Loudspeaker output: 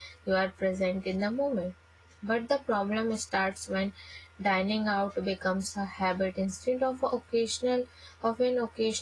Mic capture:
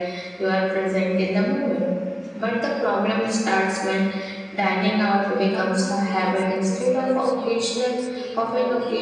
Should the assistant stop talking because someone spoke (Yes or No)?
Yes